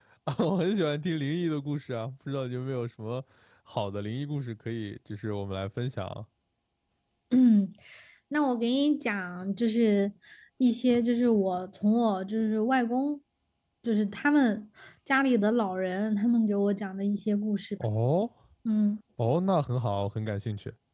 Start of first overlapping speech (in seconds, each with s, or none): none